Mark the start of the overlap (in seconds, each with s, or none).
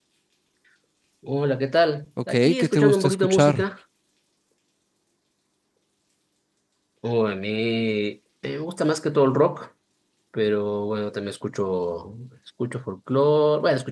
2.2 s